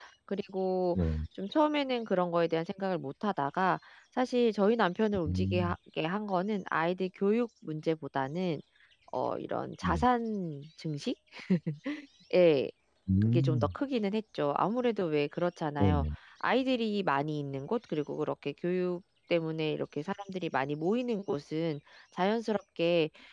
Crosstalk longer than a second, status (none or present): none